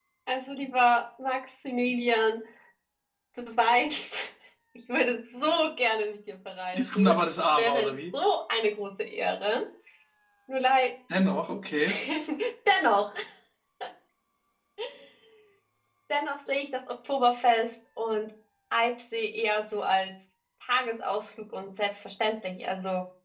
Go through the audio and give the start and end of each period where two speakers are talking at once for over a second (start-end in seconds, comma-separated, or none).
6.7-8.0